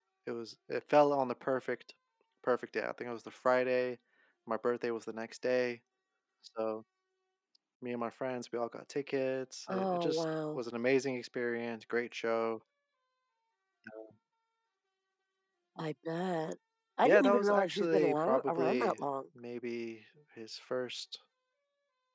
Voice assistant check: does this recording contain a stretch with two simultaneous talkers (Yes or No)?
Yes